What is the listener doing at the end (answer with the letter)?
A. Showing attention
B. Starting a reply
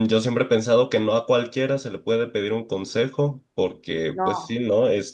A